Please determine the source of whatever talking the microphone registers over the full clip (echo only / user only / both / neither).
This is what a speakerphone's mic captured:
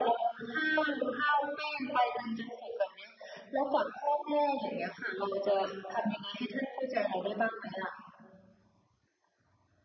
echo only